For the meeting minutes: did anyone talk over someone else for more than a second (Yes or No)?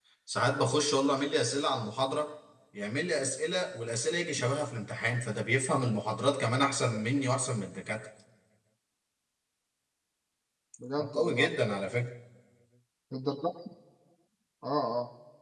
No